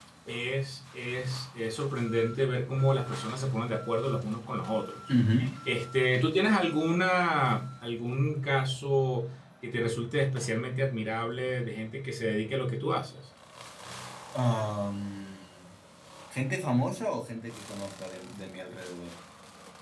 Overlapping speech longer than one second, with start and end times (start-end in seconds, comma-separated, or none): none